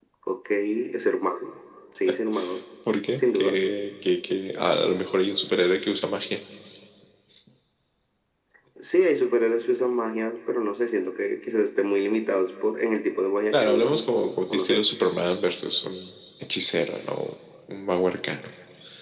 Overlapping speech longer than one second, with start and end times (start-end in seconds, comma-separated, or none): 13.5-14.8